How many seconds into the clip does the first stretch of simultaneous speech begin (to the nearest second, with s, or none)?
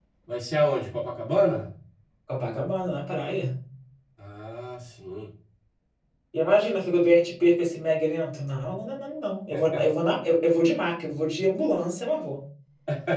none